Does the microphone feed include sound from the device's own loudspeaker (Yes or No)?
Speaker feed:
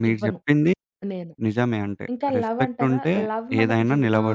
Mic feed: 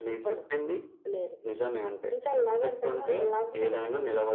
Yes